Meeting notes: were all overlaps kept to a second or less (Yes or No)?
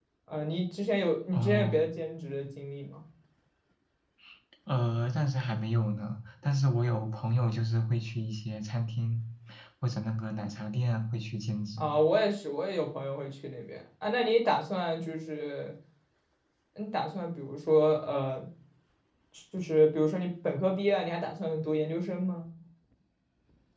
Yes